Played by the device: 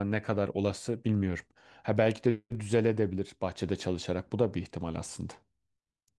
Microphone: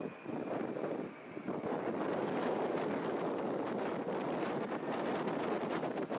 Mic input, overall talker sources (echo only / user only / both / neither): neither